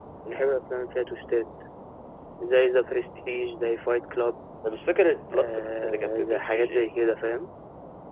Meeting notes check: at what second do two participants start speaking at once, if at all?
5 s

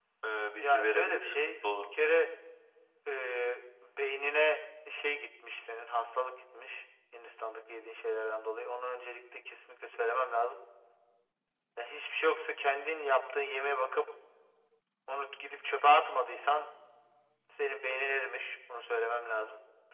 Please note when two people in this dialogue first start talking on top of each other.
1 s

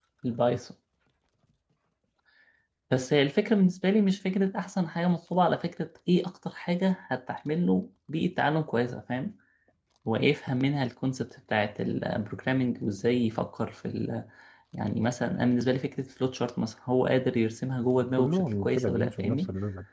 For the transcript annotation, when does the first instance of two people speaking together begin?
18 s

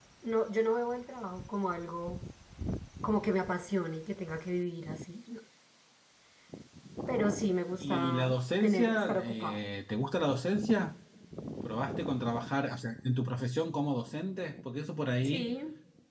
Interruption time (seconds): 8 s

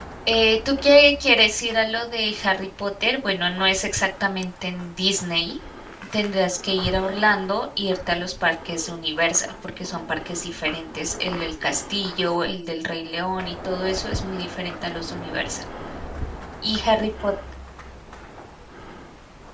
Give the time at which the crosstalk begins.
none

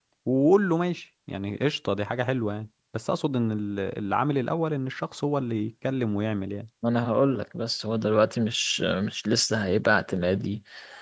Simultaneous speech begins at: none

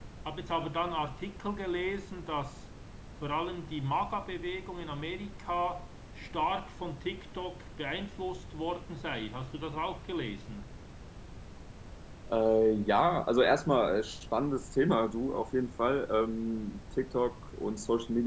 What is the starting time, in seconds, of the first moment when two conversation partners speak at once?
none

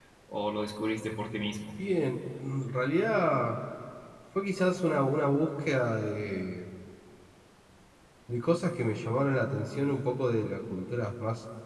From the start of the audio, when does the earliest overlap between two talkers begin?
none

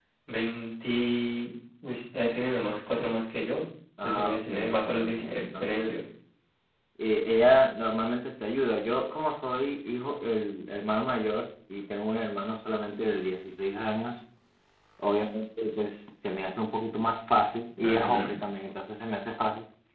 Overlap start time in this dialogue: 4 s

